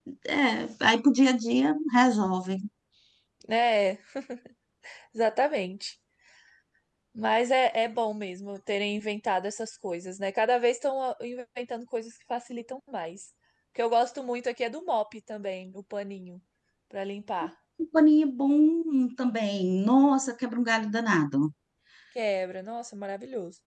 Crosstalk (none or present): none